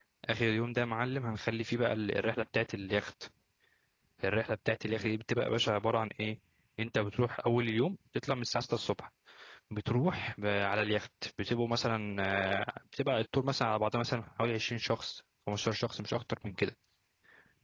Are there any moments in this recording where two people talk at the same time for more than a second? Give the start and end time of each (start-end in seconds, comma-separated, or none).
none